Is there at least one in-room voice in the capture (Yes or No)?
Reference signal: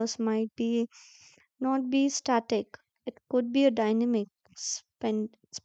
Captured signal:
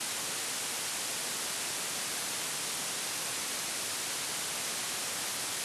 No